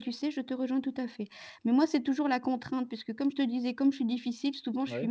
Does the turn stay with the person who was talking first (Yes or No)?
Yes